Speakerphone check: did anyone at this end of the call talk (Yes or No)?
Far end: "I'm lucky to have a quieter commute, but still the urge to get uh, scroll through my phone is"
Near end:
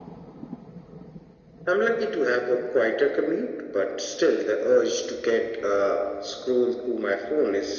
No